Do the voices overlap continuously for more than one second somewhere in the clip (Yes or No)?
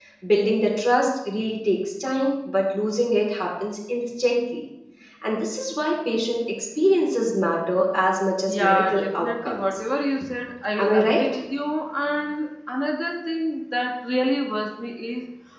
Yes